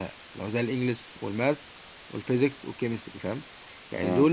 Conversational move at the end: listening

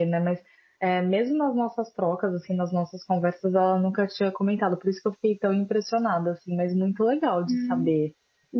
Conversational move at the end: taking over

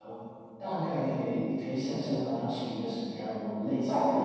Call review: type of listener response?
taking over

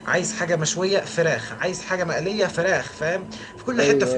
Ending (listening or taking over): listening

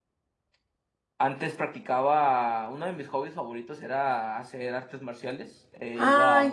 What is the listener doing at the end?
taking over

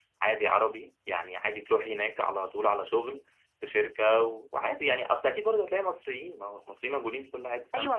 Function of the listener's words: taking over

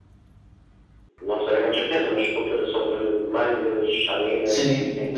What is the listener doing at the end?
taking over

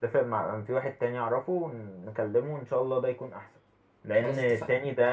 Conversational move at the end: listening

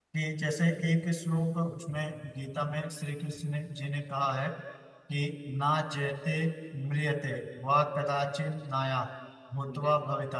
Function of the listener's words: listening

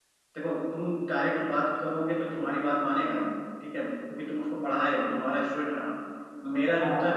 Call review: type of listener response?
listening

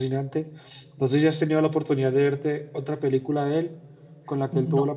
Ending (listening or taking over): listening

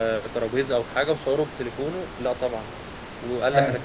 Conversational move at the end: listening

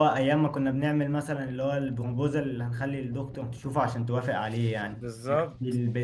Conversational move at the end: listening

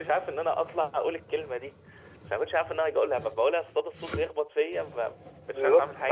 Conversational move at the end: taking over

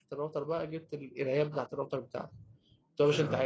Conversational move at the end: listening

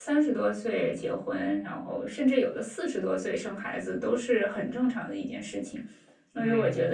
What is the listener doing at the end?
listening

